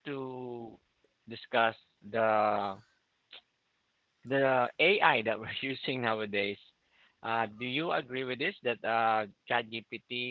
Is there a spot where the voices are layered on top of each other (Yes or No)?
No